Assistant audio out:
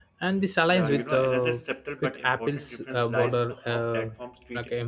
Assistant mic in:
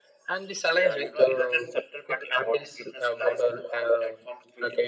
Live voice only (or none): none